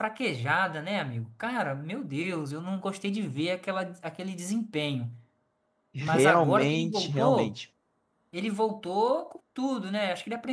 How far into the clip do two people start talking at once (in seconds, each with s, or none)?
6.0 s